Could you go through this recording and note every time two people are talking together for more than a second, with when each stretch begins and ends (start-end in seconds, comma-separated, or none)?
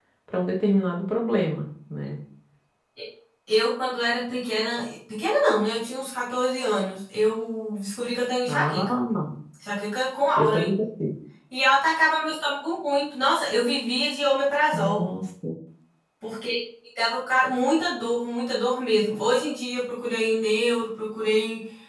none